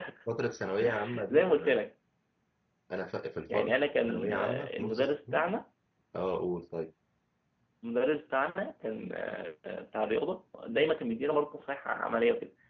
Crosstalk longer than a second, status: present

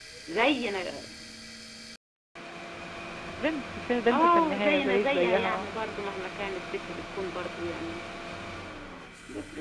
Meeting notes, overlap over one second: present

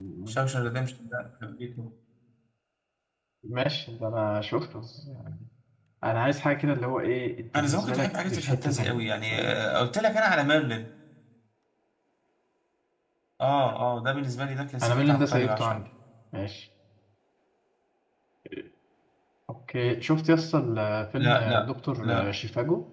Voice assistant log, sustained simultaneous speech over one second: present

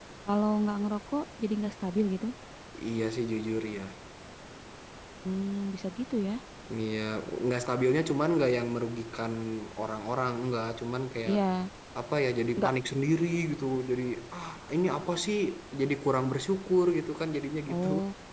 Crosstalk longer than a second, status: none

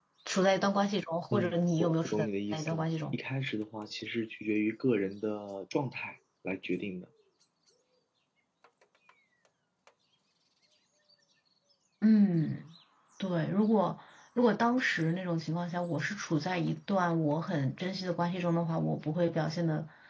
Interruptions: present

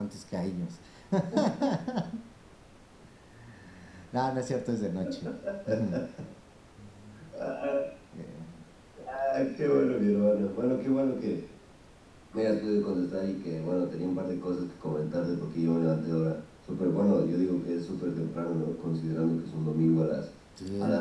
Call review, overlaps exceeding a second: none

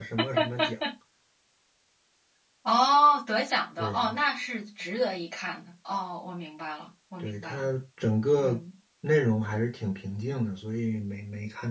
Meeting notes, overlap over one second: none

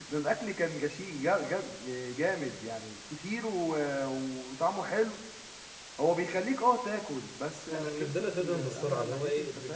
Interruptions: present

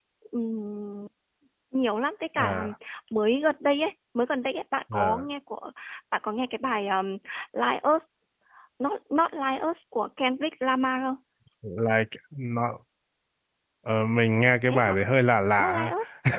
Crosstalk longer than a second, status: none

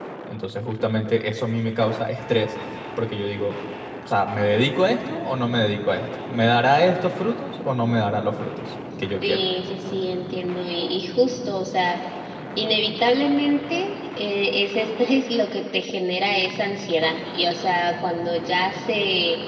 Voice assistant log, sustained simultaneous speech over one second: none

